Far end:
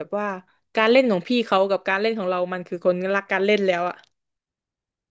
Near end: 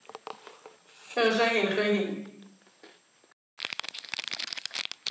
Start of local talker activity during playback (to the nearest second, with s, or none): 1 s